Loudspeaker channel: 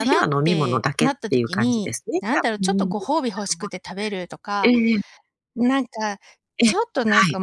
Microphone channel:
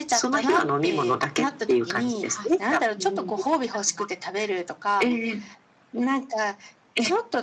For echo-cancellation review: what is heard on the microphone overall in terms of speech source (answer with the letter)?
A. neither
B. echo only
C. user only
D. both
D